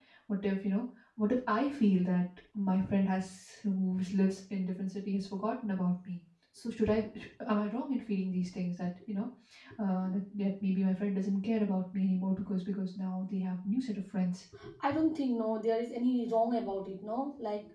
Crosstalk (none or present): none